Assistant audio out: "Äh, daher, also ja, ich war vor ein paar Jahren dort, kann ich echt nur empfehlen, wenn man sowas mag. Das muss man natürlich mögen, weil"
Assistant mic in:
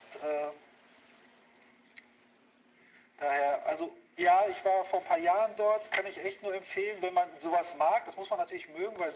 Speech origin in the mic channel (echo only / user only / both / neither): echo only